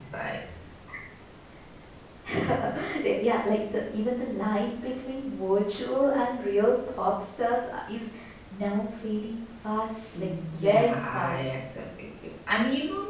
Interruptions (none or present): present